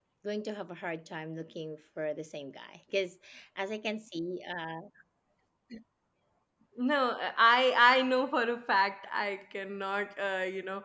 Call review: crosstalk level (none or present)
none